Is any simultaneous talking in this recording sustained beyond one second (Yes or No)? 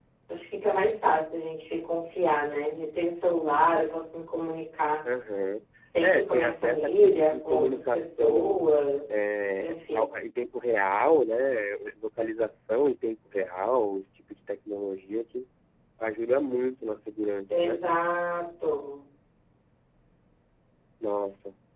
Yes